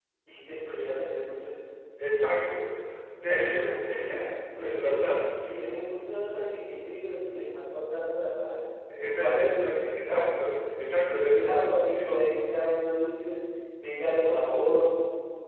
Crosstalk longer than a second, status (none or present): present